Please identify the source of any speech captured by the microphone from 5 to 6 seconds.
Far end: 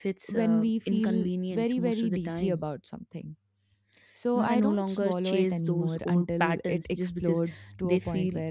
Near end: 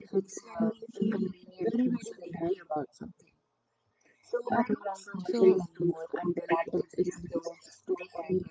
both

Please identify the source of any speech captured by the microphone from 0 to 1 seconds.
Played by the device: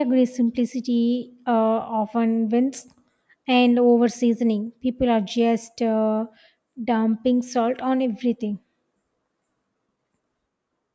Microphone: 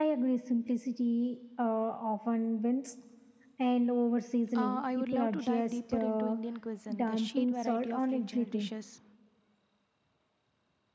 echo only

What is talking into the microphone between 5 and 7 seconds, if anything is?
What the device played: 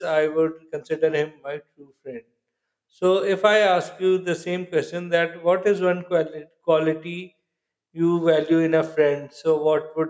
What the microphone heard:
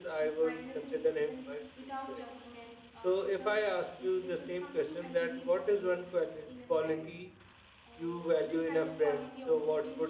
both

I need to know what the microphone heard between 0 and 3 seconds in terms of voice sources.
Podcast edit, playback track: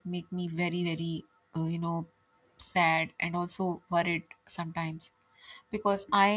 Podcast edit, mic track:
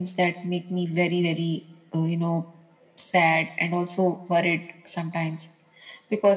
echo only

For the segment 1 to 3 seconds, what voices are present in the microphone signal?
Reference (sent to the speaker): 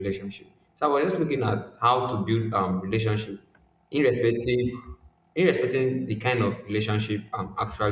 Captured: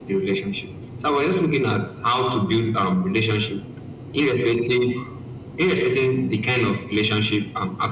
echo only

